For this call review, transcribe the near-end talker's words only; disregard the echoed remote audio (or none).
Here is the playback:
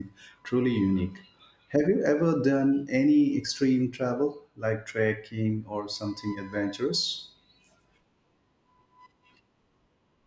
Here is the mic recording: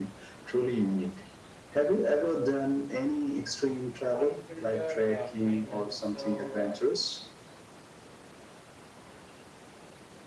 unfiltered uh, kindness. So, uh,